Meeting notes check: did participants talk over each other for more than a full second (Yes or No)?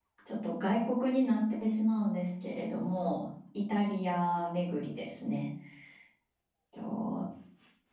No